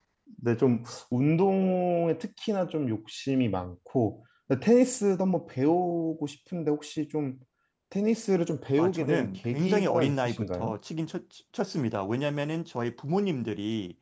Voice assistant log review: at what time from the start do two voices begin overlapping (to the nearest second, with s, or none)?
9 s